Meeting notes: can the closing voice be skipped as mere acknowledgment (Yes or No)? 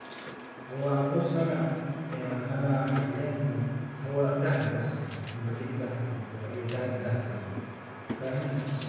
Yes